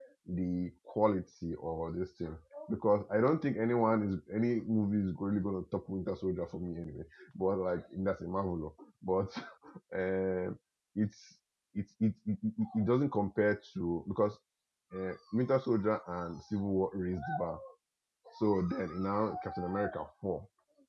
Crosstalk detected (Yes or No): No